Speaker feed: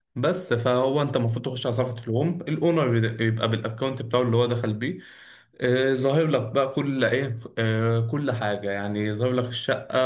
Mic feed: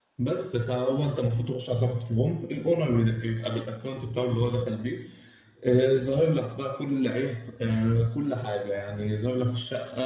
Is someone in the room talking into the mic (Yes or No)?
No